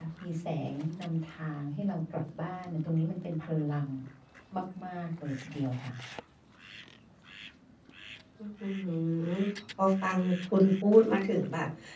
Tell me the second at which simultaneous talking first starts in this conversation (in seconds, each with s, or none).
none